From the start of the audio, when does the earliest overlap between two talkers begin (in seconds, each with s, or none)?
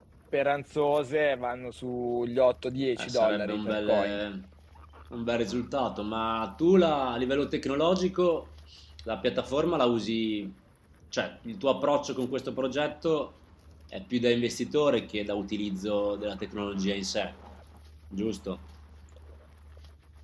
3.0 s